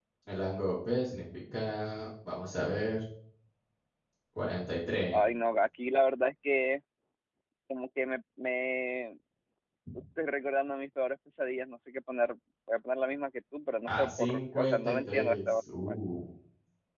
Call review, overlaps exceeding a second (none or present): present